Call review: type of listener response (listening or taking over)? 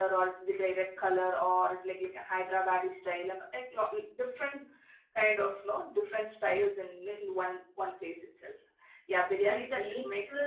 taking over